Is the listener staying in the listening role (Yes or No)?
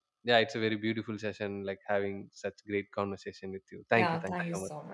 No